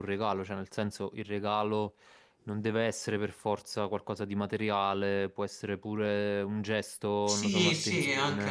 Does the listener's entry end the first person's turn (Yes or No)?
Yes